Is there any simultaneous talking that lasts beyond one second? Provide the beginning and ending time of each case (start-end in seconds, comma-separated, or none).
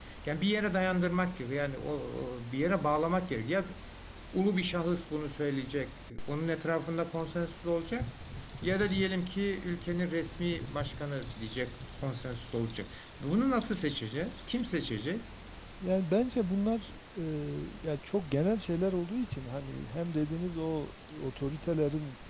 none